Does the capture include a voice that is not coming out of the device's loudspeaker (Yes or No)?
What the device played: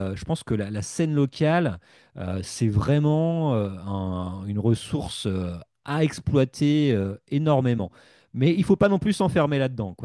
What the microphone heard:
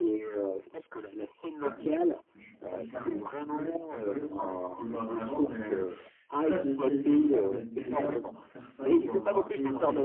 Yes